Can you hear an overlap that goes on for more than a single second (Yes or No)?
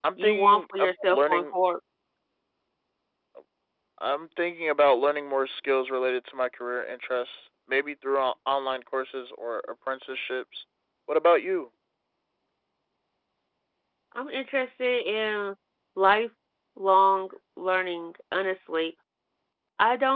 Yes